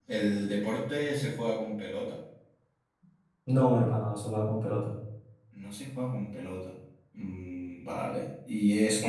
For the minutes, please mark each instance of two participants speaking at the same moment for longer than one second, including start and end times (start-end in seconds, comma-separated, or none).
none